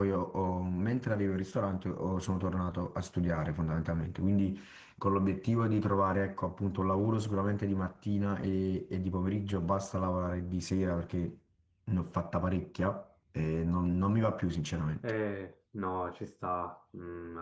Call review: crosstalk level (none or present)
none